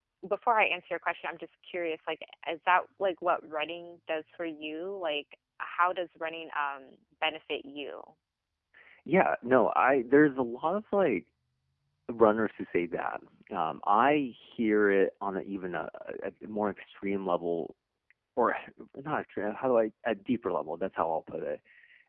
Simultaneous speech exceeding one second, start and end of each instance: none

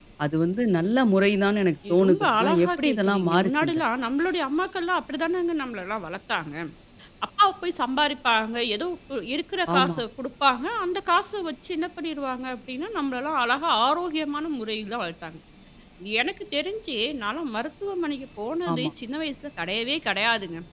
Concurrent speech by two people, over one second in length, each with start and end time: 2.0-3.8

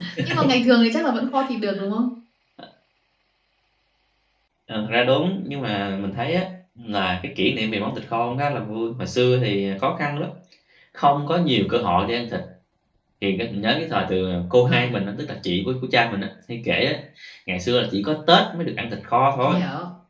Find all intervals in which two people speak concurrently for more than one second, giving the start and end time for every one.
none

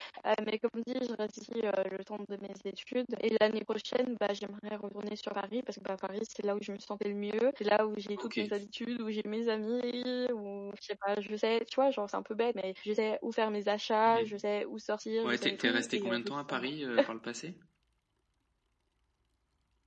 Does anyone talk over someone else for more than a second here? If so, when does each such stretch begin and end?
15.2-16.7

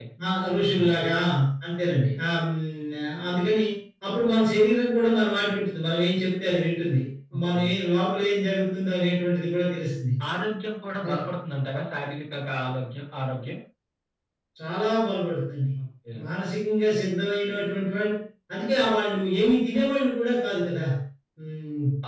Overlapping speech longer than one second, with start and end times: none

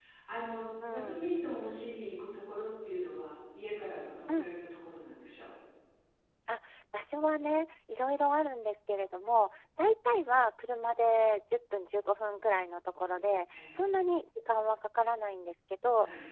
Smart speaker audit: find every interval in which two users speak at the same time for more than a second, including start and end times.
none

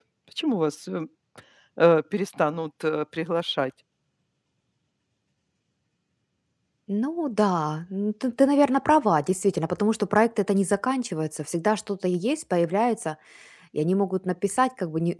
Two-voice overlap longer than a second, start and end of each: none

